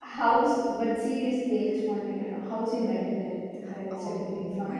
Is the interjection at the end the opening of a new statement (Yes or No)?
Yes